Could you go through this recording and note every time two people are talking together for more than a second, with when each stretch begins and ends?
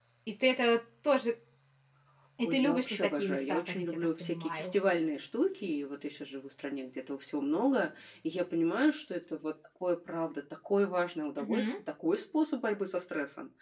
2.4-4.7

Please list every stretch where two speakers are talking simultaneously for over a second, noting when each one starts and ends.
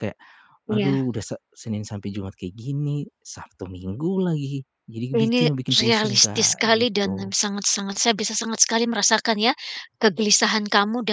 5.9-7.3

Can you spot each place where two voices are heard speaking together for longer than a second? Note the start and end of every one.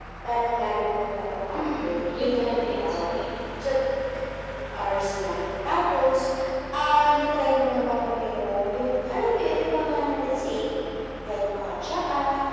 1.5-3.2

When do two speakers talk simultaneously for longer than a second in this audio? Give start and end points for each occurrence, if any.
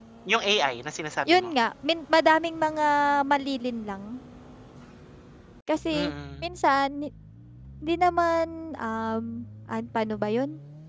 none

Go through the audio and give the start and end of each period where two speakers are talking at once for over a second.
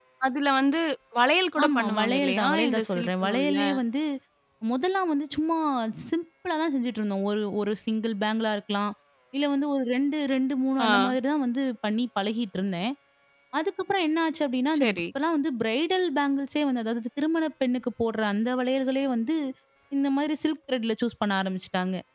1.6-3.6

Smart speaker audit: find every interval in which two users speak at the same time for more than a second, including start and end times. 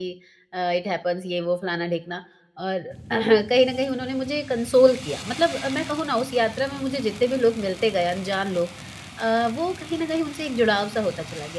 none

